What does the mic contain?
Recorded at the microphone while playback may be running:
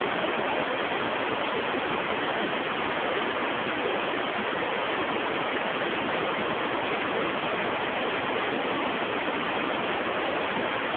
neither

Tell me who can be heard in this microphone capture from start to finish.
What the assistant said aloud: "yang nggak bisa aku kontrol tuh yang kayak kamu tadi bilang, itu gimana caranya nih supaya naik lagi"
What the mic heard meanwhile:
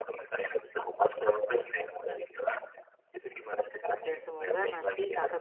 both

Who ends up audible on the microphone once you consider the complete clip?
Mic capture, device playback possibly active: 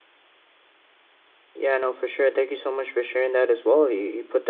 user only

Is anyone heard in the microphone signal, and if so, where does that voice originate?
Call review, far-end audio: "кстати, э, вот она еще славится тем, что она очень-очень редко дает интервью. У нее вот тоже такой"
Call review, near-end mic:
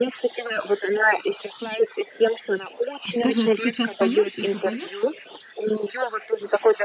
both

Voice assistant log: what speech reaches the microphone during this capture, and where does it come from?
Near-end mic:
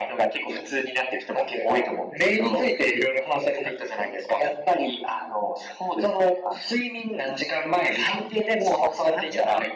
echo only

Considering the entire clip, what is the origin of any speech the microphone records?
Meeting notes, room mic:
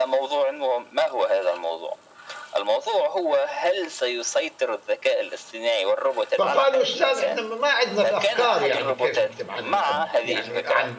both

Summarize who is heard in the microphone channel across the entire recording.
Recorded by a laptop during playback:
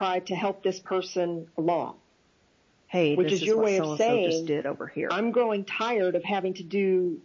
both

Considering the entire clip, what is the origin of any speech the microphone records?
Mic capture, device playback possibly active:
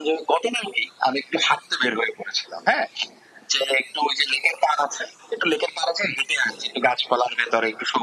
echo only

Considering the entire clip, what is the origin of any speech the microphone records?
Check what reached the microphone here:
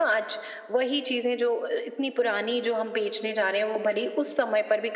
echo only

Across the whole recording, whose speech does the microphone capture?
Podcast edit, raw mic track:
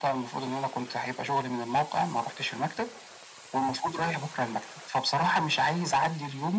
echo only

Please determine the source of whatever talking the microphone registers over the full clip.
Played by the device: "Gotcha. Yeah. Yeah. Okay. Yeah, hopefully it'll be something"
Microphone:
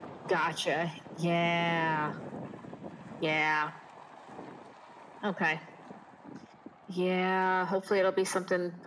echo only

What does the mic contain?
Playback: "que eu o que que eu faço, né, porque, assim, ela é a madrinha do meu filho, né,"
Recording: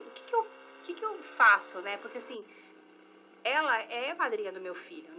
echo only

